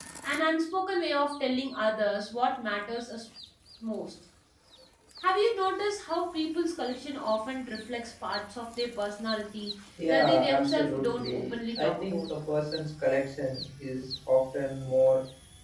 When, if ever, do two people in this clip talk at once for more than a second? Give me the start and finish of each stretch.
10.1-12.3

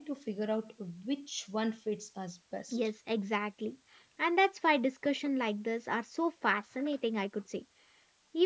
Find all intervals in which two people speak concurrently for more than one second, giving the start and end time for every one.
none

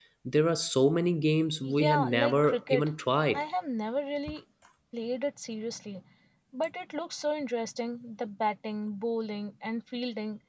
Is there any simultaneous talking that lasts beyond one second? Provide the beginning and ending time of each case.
1.6-2.9

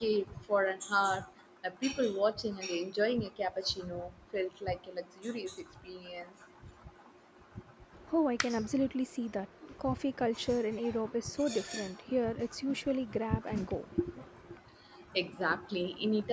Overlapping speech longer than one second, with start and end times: none

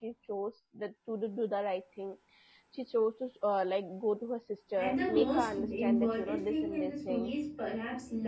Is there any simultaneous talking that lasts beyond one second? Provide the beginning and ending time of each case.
4.8-7.3

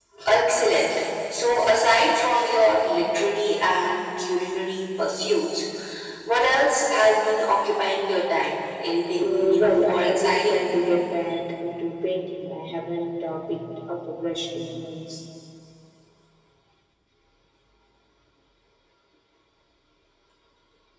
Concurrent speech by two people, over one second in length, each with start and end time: 9.2-10.6

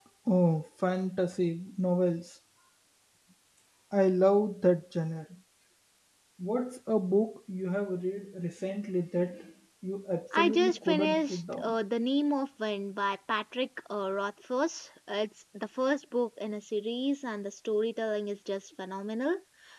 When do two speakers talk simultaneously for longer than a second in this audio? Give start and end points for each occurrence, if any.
10.3-11.8

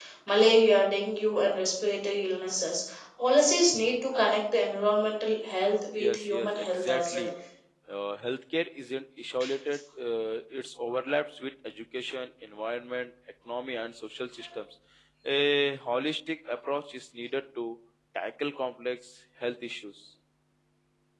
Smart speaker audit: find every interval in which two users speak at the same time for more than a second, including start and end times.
6.0-7.3

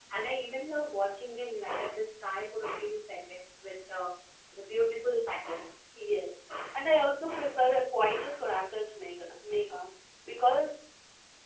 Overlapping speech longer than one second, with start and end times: none

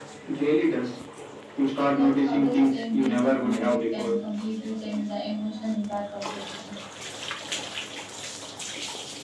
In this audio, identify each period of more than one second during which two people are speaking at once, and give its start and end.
1.9-4.1

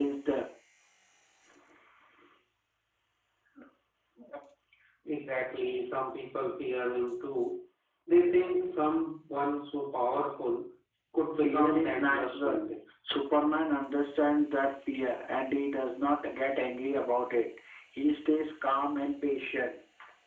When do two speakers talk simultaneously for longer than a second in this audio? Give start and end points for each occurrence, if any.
11.3-12.6

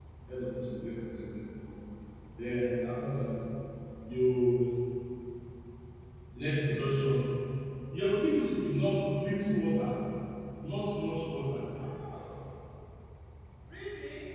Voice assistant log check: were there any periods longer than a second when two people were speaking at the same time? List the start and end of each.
none

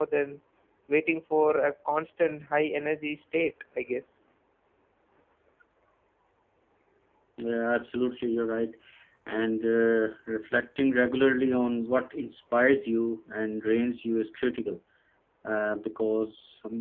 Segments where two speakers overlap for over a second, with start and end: none

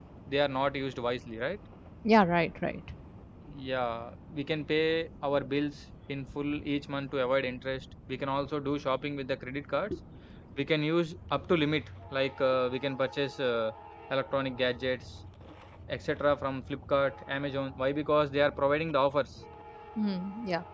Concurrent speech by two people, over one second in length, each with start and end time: none

